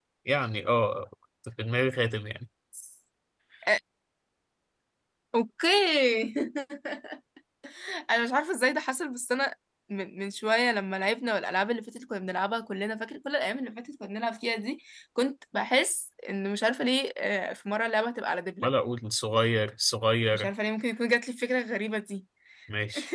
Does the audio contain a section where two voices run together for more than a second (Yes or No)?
No